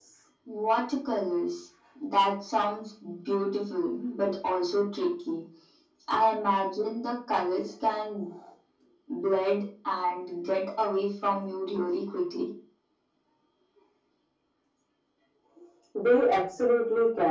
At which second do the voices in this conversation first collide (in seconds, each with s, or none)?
none